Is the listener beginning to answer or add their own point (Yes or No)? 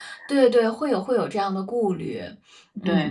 Yes